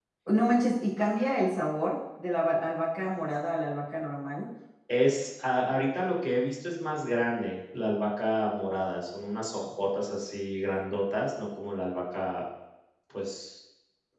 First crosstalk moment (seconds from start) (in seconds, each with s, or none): none